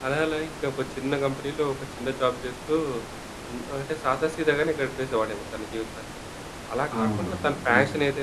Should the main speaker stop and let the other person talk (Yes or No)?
No